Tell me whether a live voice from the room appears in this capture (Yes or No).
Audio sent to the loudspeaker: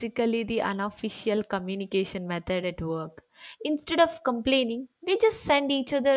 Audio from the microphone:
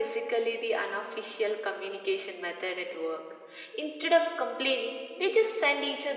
No